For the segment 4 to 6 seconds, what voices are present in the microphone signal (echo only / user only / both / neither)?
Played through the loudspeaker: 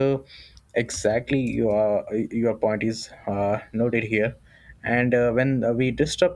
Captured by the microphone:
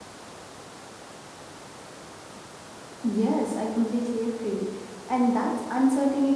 user only